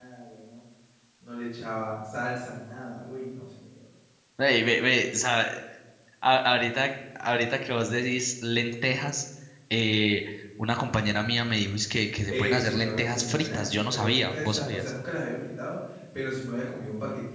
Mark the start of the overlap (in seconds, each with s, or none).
12.3 s